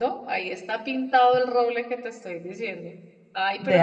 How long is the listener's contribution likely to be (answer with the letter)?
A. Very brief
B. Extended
A